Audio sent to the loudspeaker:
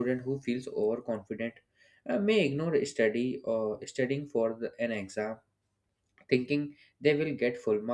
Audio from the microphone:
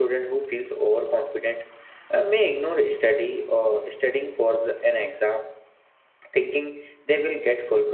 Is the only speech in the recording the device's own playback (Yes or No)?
Yes